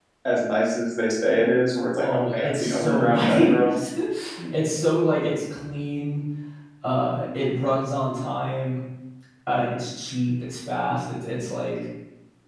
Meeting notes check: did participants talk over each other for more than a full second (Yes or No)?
Yes